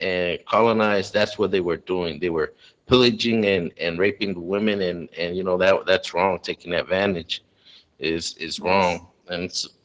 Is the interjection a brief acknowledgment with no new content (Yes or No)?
Yes